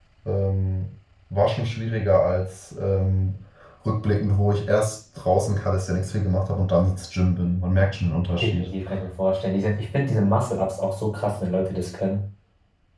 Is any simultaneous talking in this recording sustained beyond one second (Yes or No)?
No